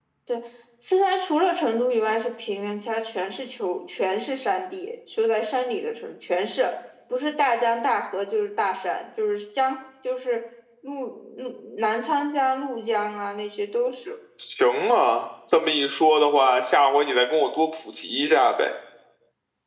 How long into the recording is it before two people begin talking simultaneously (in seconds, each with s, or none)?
none